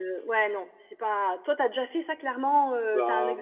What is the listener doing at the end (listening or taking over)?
taking over